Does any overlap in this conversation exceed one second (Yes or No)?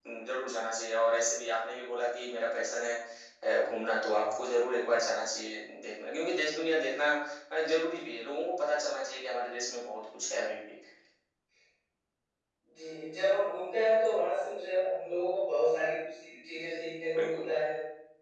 No